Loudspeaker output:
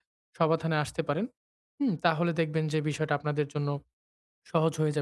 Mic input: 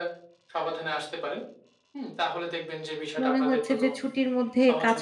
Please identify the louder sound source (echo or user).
user